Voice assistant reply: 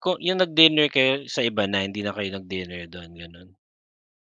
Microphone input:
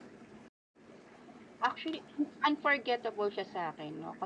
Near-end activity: present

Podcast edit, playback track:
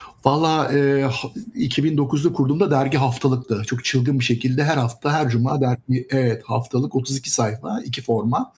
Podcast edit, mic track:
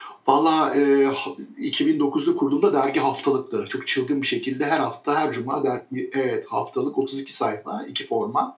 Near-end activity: none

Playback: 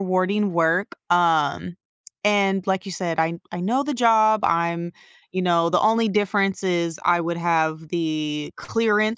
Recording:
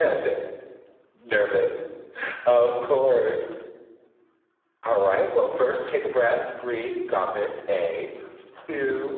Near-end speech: present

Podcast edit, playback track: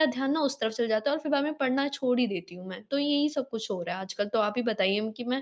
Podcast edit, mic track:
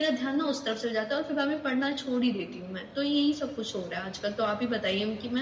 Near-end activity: none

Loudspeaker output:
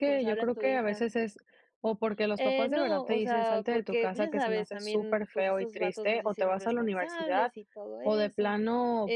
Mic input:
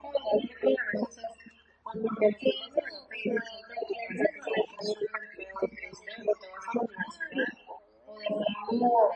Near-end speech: none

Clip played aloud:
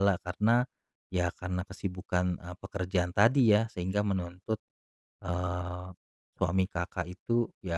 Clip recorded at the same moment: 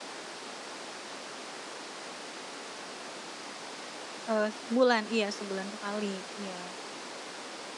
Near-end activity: present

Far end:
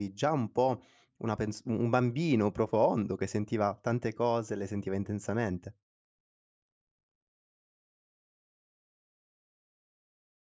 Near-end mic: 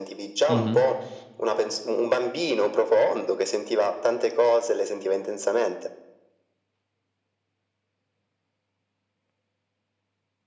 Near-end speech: present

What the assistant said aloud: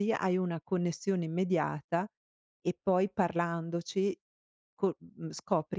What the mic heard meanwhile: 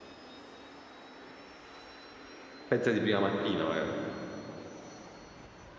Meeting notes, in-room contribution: present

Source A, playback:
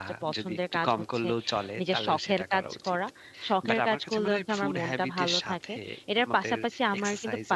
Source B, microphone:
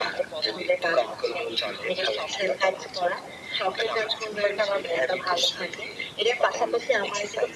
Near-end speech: none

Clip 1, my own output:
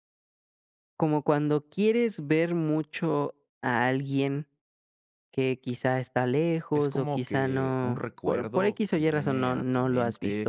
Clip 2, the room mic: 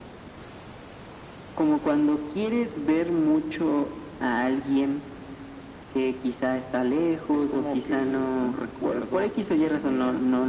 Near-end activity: none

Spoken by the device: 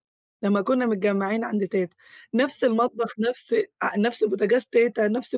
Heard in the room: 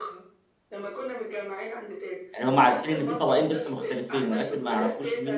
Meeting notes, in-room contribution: present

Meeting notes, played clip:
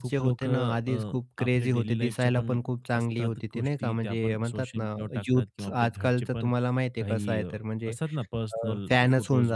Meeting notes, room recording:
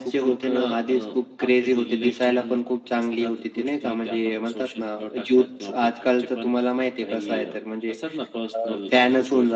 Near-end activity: none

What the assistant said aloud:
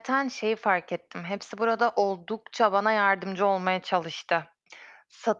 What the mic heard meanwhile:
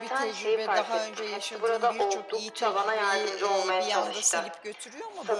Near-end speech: present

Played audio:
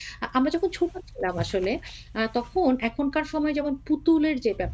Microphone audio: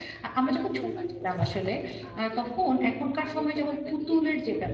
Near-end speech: present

